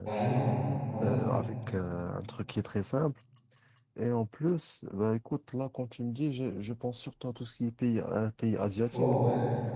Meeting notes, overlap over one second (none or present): none